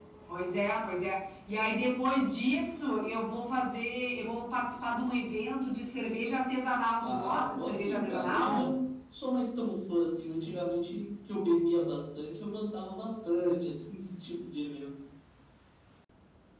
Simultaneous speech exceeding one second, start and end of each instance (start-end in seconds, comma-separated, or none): 7.0-8.7